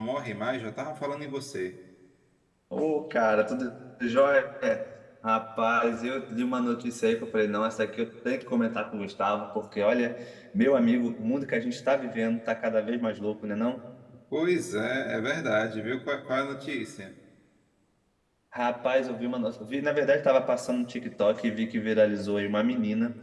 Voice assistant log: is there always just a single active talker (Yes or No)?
Yes